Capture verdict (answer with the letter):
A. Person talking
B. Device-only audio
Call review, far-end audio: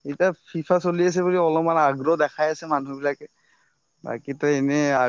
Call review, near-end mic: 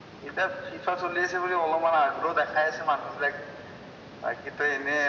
B